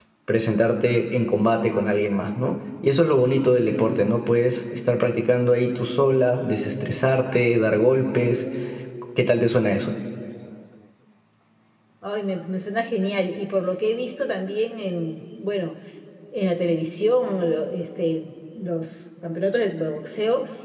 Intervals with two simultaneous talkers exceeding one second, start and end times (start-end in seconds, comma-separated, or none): none